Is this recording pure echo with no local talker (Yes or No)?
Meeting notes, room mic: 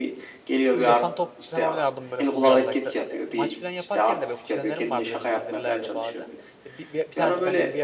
No